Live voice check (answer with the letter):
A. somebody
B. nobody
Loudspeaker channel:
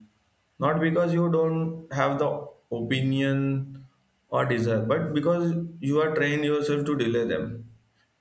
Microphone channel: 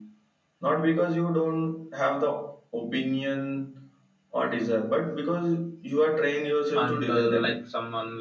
A